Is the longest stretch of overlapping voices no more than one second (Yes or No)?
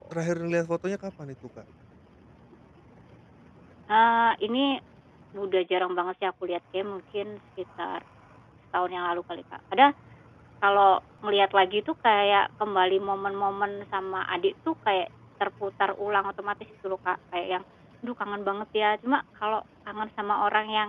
Yes